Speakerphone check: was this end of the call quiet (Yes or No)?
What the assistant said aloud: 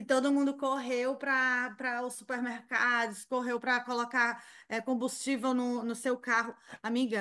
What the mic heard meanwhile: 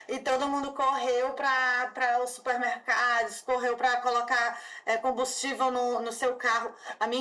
Yes